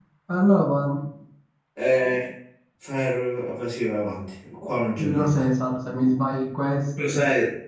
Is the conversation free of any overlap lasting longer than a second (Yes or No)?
Yes